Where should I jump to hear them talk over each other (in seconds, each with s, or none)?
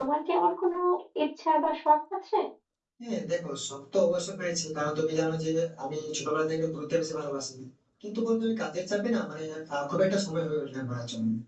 none